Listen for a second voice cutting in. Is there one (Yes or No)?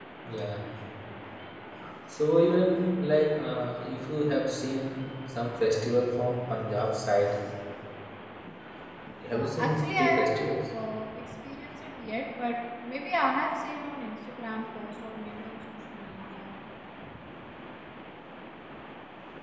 Yes